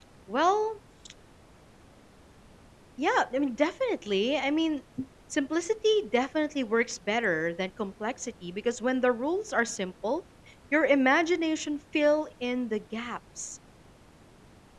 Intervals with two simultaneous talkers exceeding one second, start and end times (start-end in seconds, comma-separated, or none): none